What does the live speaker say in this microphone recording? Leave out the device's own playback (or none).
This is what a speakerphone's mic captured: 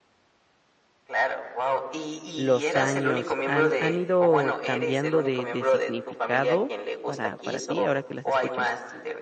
los años, ¿han han ido cambiando de de significado para para ti ahora que las escuchas?